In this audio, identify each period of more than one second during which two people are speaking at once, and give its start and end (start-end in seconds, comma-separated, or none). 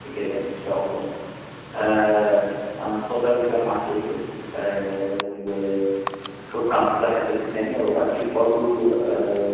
none